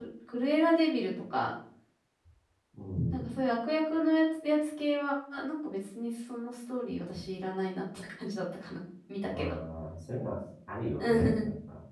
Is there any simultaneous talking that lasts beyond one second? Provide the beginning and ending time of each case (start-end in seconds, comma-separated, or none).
none